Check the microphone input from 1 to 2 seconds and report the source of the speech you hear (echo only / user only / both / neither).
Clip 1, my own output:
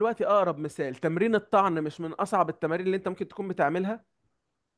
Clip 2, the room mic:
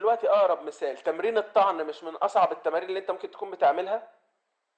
echo only